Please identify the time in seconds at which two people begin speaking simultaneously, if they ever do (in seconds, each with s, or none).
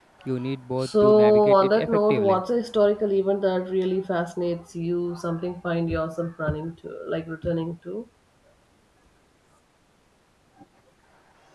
0.8 s